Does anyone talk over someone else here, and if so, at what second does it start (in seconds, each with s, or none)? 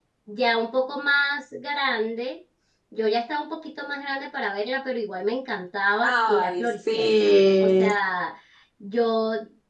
6.0 s